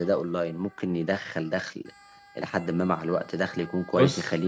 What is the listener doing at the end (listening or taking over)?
listening